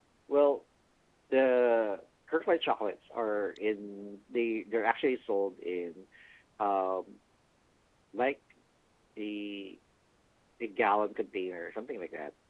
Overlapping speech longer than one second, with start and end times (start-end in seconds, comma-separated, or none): none